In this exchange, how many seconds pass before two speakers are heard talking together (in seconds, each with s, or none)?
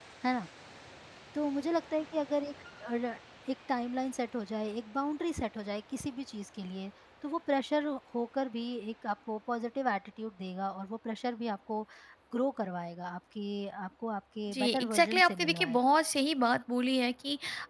14.5 s